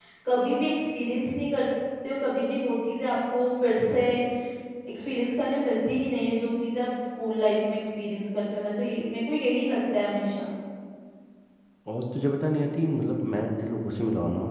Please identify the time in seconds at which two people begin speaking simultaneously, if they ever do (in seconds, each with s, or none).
none